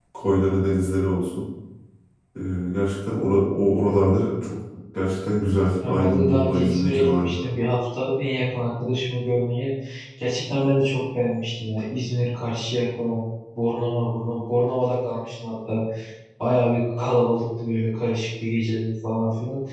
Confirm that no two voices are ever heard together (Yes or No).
No